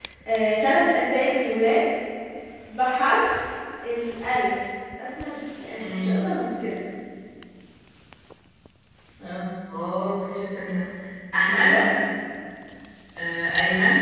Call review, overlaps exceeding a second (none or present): none